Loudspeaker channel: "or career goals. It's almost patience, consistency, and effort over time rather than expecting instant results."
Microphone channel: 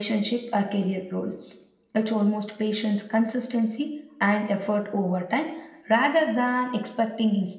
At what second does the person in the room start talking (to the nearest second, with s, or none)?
none